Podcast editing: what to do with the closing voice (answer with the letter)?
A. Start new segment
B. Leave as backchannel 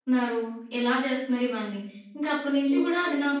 B